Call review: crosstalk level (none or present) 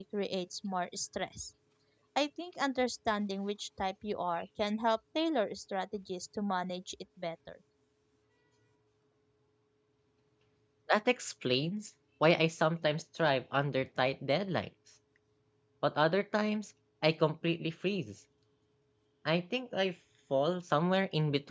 none